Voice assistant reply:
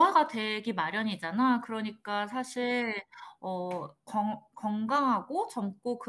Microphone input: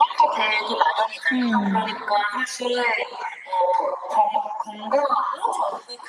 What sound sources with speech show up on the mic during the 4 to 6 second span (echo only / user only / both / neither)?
echo only